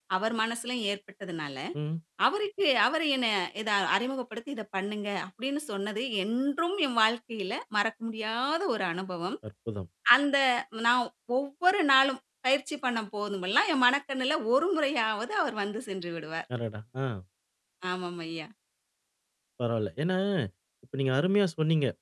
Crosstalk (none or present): none